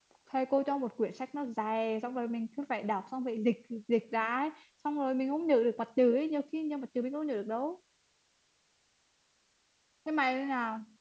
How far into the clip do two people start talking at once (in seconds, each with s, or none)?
none